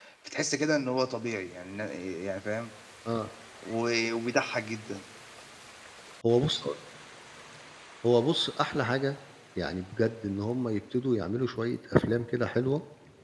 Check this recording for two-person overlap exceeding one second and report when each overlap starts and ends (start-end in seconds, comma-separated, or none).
none